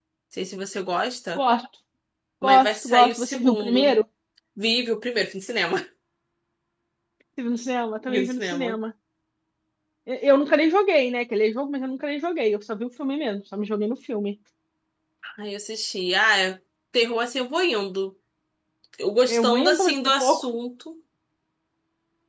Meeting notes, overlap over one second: present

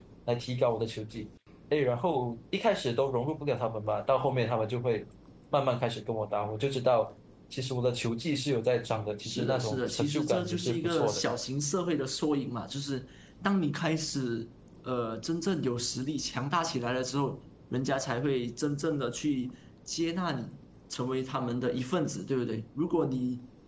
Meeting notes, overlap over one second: present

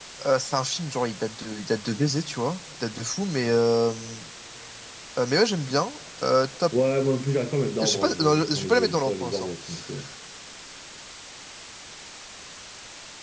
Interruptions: present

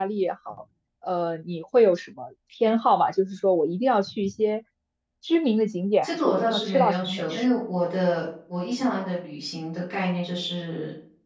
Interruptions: present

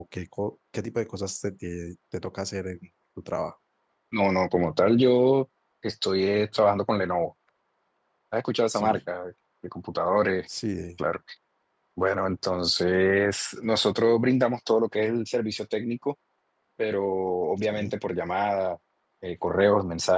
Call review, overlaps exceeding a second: none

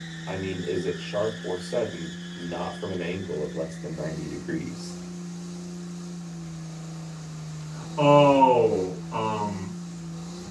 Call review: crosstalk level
none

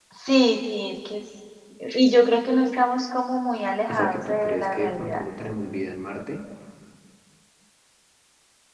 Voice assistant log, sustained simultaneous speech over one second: present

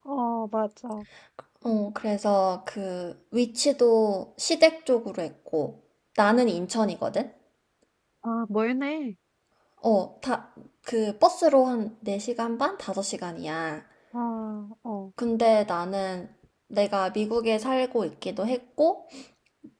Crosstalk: none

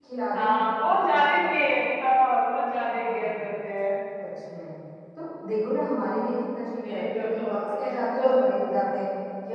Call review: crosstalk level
present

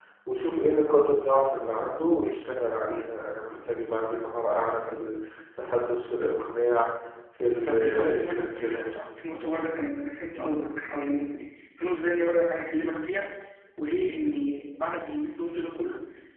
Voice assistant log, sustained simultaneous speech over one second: present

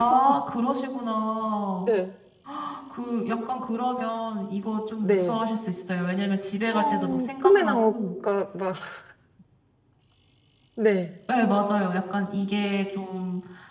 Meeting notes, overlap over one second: present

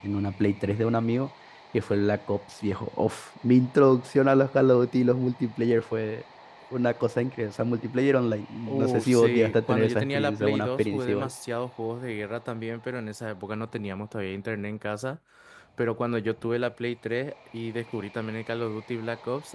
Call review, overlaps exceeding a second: present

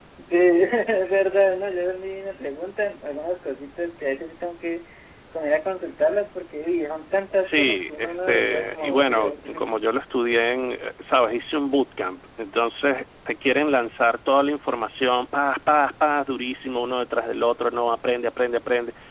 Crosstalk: present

